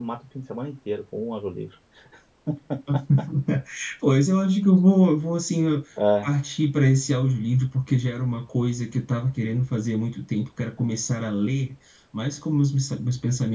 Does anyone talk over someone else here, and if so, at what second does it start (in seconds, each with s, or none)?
none